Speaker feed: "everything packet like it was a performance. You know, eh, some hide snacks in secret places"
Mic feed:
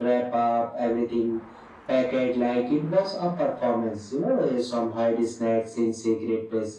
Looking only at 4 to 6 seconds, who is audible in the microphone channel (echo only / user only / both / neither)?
echo only